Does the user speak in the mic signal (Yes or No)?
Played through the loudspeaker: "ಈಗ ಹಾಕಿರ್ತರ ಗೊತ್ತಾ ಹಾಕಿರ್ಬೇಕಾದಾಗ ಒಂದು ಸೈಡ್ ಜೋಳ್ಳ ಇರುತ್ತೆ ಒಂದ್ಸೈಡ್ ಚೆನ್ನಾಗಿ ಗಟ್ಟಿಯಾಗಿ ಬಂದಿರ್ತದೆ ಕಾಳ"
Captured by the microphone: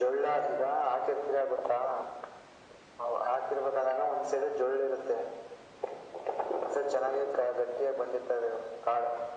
No